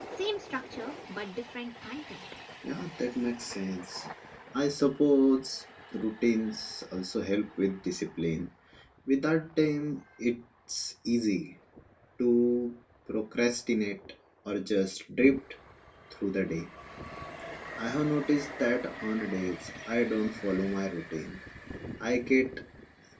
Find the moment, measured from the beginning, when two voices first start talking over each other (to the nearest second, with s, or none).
none